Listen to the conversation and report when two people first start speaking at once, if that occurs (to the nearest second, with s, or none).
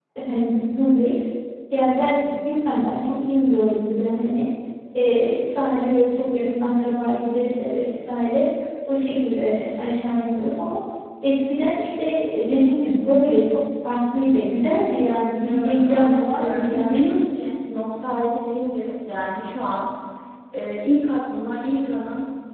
15 s